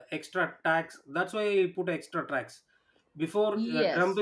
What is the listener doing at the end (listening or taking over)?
listening